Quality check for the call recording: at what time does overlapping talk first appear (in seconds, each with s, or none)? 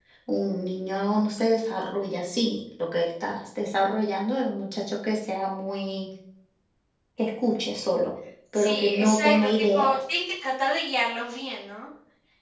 8.5 s